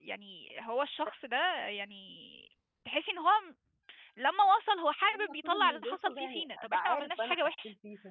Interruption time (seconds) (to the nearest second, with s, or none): 5 s